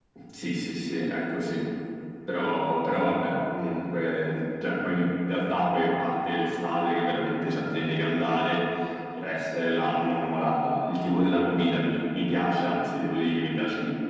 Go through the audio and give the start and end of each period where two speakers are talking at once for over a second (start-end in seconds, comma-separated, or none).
none